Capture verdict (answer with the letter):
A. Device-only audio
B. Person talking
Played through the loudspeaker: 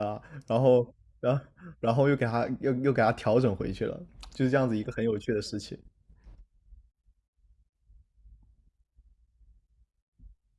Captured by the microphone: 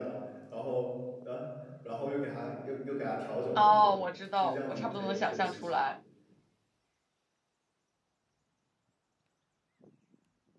B